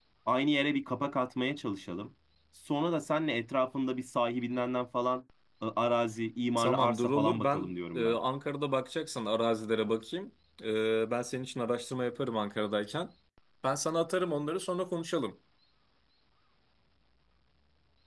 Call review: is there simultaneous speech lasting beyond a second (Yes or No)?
Yes